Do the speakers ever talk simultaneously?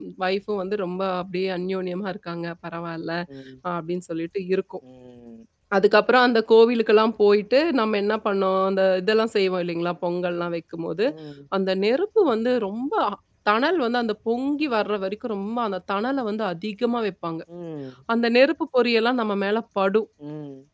No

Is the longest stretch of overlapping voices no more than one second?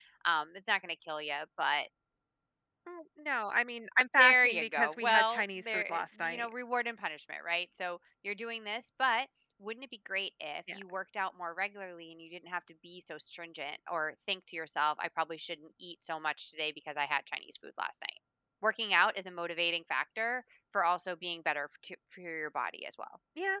No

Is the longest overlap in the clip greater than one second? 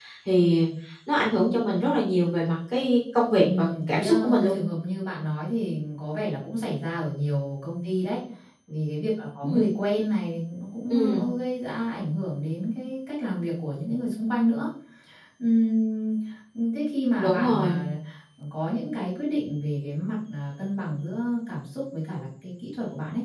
Yes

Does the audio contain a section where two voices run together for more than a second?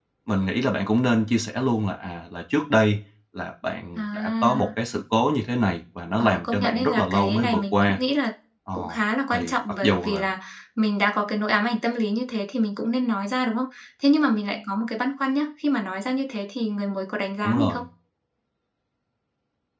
Yes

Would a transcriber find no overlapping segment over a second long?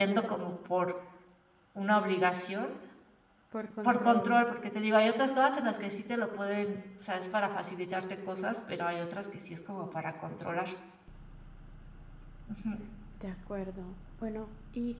Yes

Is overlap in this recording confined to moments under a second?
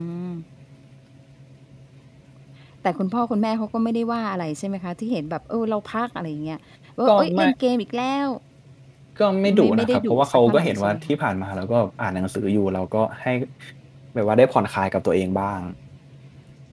No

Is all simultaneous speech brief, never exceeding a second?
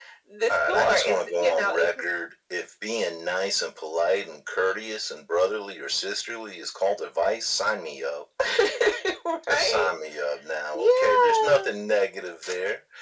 No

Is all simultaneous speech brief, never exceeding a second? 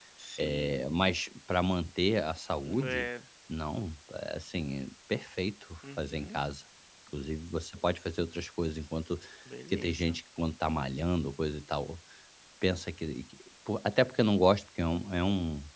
Yes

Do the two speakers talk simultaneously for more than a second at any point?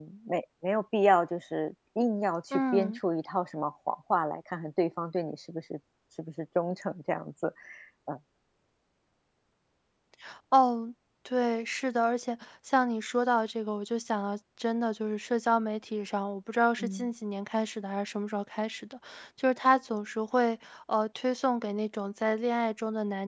No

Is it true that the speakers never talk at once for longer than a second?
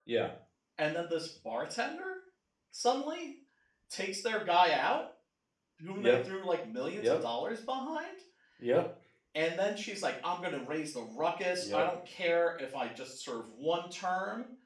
Yes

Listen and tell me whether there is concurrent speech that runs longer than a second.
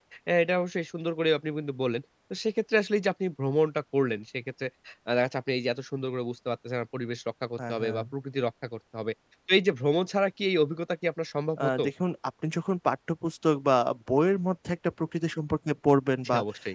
No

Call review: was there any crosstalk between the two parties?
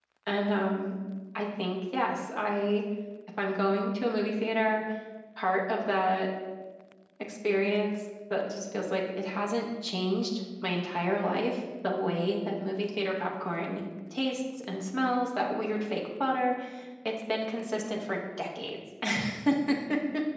No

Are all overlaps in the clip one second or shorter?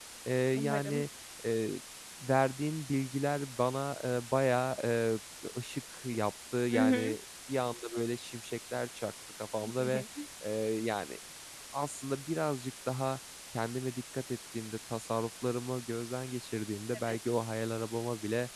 Yes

